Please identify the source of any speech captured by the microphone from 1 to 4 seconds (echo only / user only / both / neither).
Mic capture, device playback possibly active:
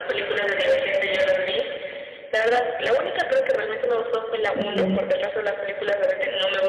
echo only